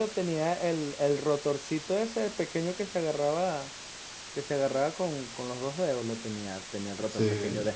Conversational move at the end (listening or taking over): listening